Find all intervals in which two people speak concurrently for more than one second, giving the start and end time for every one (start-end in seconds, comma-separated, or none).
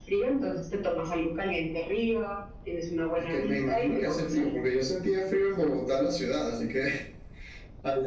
3.2-4.5